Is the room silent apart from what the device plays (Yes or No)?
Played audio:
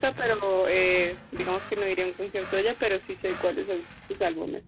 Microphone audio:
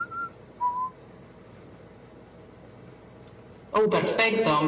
No